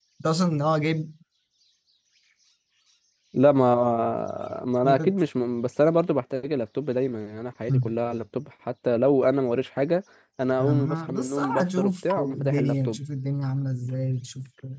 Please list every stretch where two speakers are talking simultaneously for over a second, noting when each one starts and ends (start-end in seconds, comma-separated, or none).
10.6-13.0